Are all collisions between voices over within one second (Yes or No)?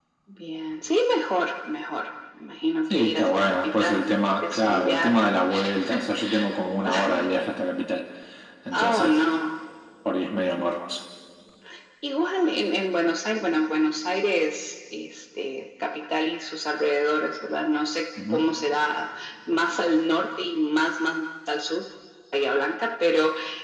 No